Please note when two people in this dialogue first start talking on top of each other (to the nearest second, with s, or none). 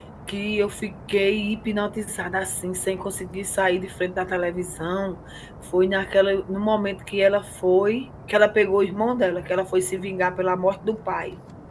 none